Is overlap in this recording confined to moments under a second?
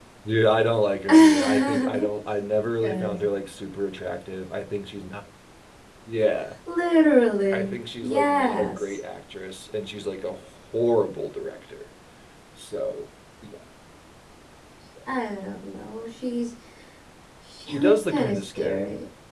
No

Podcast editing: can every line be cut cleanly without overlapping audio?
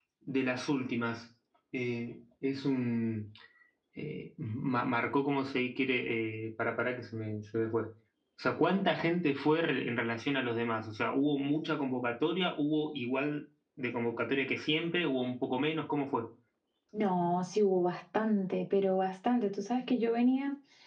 Yes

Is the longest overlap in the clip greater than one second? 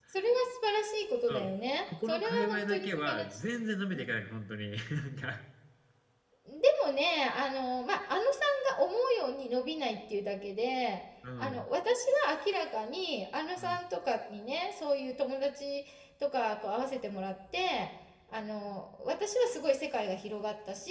Yes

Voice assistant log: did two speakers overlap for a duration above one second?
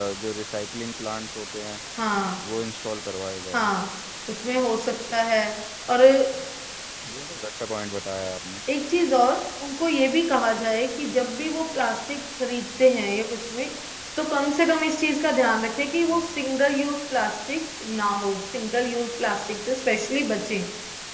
No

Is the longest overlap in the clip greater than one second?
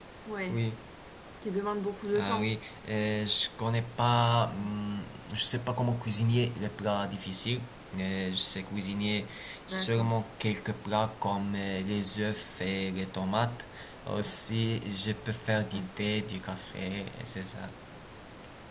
No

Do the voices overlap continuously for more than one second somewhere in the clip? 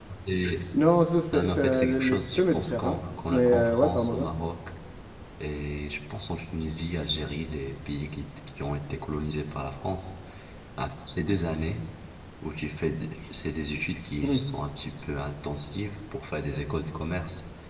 Yes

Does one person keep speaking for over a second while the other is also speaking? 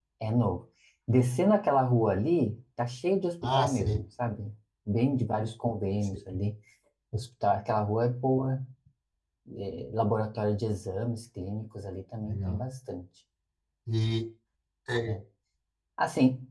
No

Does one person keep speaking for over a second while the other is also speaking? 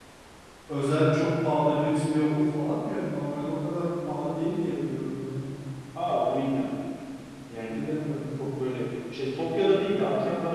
No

